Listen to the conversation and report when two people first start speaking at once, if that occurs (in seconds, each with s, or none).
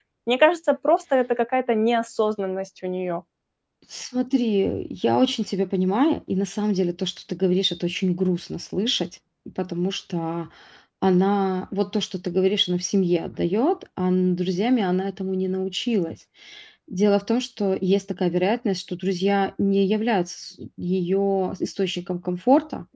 none